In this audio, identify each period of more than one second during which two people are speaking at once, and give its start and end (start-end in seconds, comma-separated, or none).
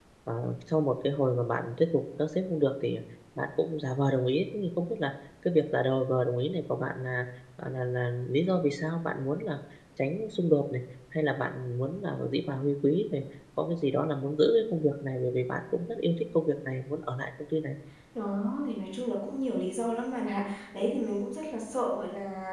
none